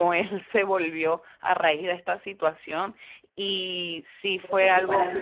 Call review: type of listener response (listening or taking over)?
taking over